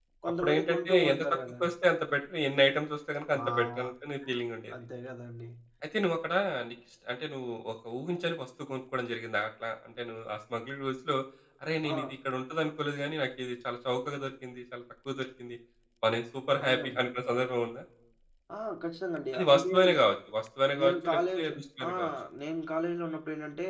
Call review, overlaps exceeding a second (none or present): present